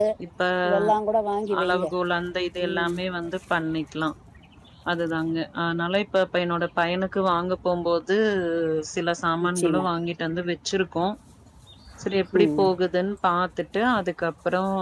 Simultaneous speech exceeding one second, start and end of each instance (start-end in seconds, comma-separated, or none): none